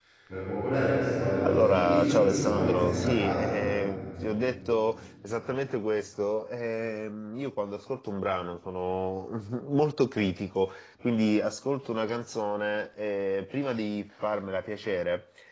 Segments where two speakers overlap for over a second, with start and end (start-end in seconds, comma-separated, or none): 1.4-3.6